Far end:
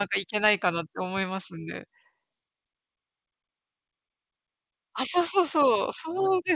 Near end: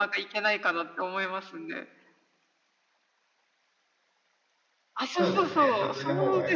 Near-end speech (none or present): present